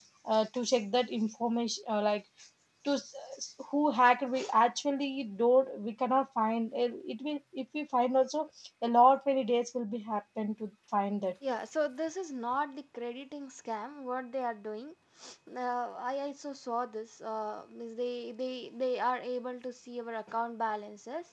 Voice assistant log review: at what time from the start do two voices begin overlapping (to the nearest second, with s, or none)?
none